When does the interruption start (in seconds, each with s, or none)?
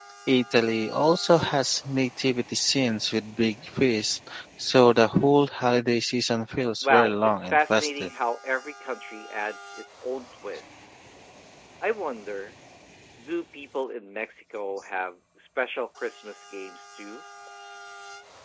6.8 s